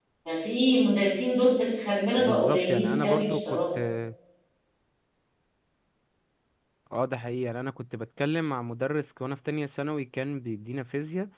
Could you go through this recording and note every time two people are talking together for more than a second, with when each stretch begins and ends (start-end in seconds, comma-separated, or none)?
2.2-3.6